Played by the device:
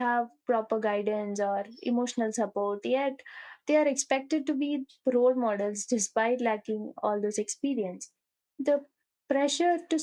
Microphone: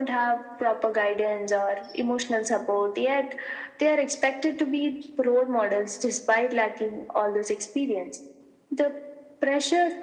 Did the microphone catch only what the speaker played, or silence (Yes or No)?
Yes